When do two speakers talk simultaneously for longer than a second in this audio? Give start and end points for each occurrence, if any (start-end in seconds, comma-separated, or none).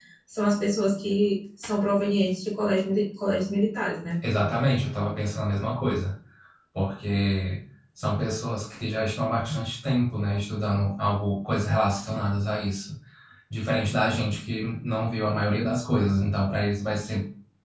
none